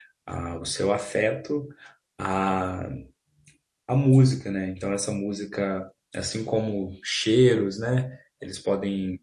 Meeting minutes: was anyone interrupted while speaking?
No

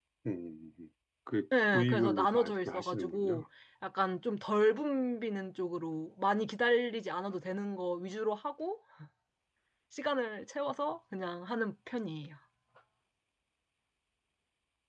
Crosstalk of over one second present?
Yes, from 1.5 s

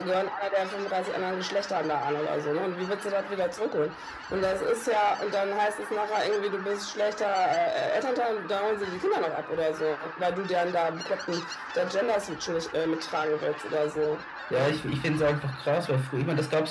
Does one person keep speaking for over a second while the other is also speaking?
No

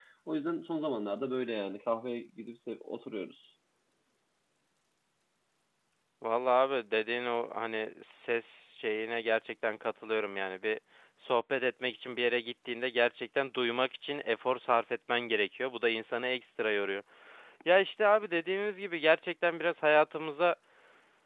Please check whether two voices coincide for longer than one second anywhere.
No

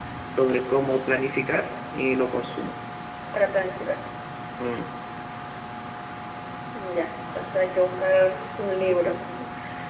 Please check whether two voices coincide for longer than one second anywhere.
No

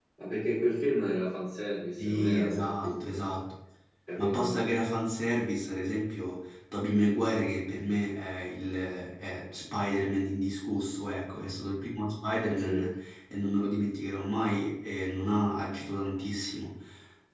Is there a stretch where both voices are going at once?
Yes, from 2.0 s

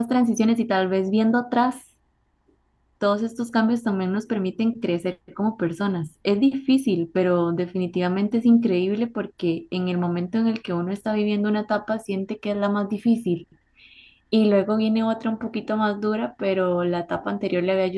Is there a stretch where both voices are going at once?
No

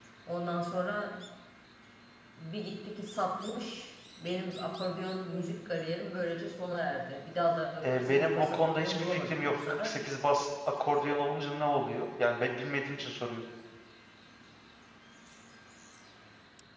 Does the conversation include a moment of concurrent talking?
Yes, from 7.8 s

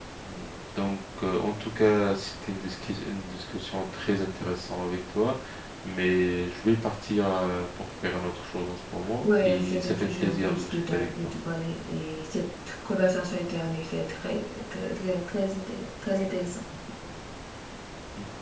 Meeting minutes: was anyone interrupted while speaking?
Yes, from 9.2 s

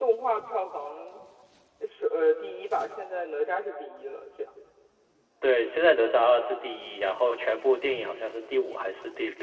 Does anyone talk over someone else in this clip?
No

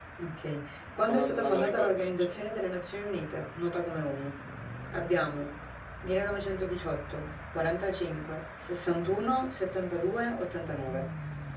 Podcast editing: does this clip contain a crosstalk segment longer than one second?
Yes, from 1.0 s

